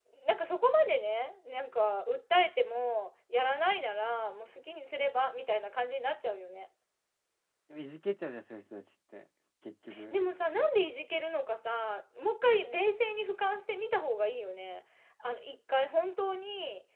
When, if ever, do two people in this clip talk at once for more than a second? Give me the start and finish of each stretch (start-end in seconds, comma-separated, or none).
none